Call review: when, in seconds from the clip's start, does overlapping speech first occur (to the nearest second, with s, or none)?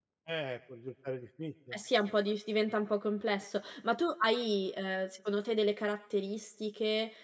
none